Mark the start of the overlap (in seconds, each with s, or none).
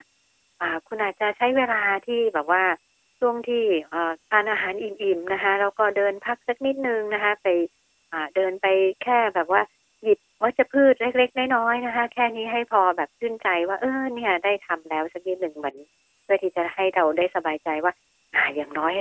none